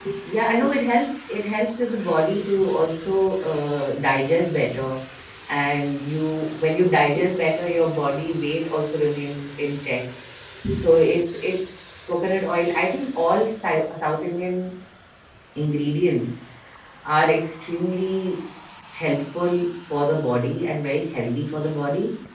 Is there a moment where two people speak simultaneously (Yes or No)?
No